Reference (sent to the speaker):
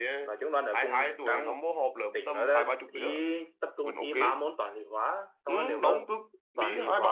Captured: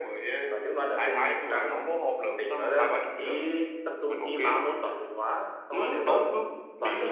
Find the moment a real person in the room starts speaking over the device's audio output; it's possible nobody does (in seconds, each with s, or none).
none